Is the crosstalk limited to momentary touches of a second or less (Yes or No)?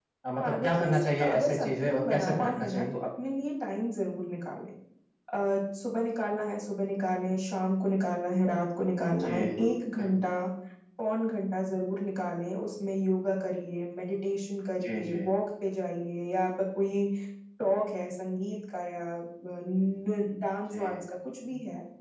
No